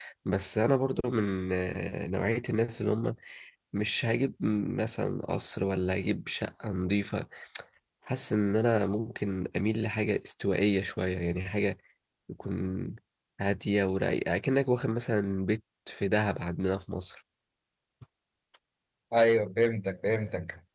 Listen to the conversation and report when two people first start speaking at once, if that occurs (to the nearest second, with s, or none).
none